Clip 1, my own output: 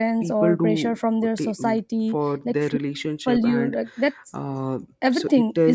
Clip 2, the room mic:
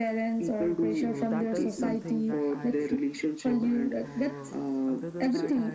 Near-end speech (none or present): present